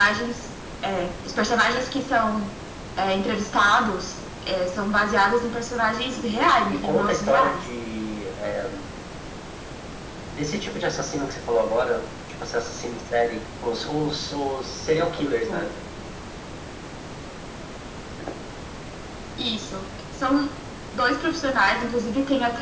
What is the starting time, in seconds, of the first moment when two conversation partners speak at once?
6 s

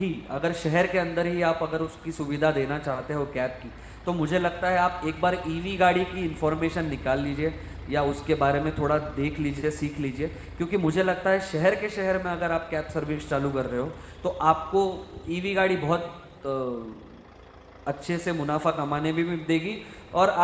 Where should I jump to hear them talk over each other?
none

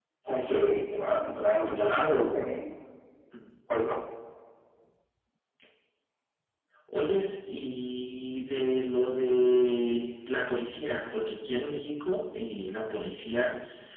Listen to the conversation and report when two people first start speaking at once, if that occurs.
none

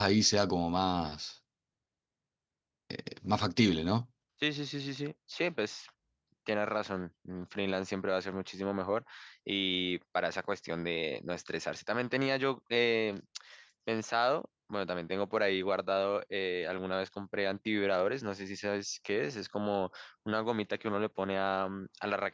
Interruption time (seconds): none

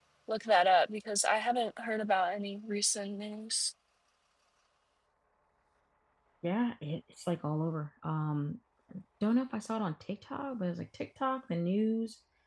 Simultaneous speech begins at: none

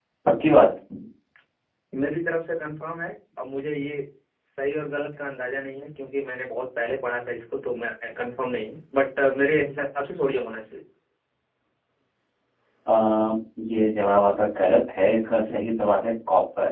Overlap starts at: none

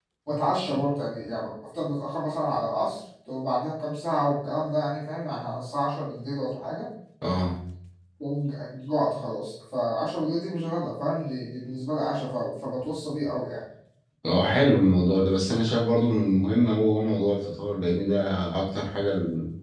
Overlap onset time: none

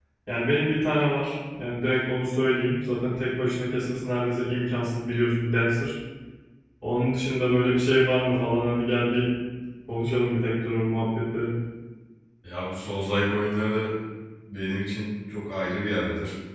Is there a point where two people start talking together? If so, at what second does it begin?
none

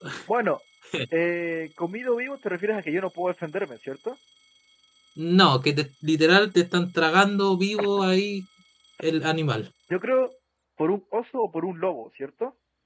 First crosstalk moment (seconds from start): none

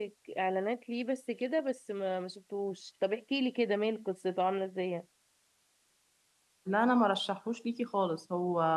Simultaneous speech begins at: none

